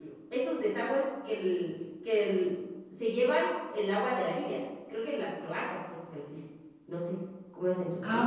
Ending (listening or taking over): taking over